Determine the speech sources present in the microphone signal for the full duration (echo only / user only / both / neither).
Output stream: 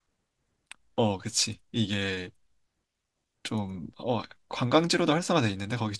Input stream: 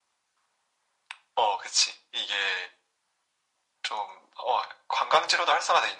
echo only